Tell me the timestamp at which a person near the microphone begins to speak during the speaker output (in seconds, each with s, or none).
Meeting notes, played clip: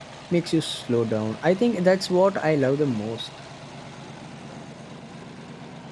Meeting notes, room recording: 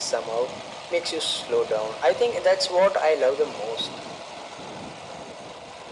none